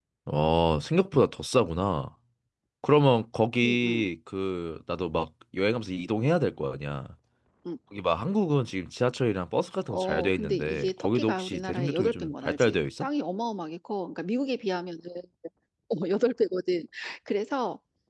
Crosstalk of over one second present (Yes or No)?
Yes